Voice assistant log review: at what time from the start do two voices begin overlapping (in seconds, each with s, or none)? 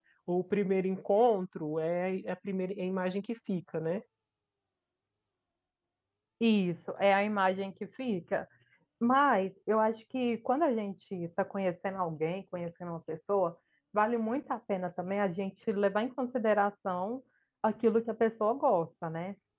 none